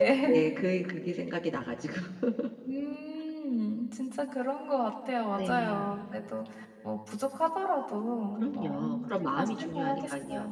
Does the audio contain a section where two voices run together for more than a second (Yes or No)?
Yes